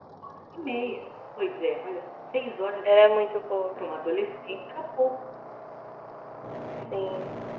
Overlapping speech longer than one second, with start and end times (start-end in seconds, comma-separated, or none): none